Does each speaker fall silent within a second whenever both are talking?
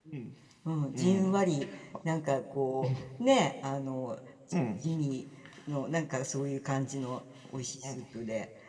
Yes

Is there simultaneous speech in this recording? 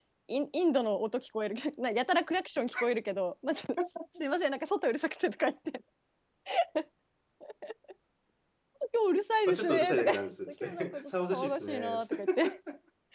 Yes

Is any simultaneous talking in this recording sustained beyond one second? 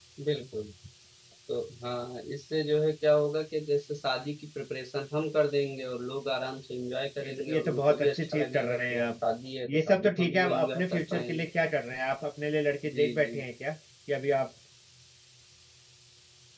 Yes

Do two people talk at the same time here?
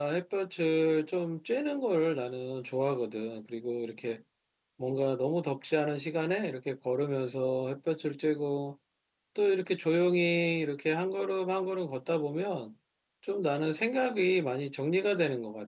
No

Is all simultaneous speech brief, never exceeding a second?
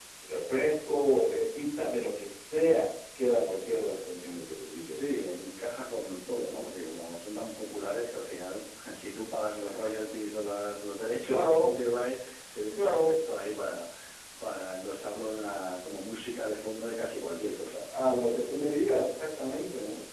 Yes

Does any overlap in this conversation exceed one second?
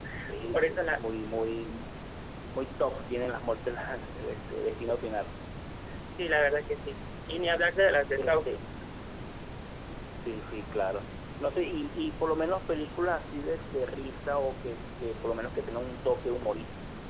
No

